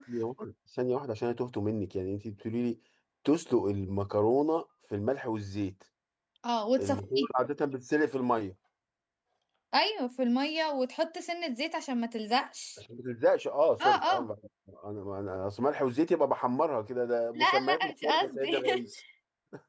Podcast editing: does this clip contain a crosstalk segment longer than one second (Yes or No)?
Yes